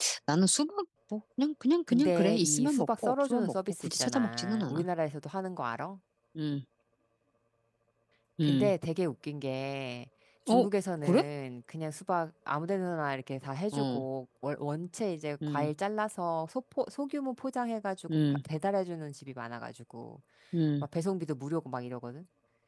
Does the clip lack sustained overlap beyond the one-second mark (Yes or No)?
No